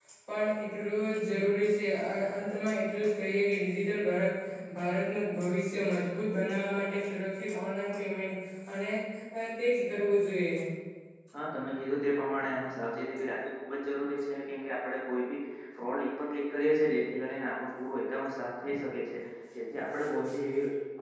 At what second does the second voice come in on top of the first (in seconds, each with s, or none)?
none